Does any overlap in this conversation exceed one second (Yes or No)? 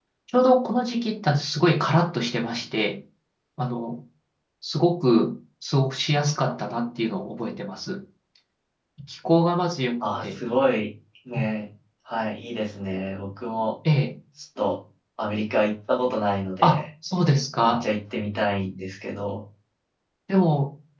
No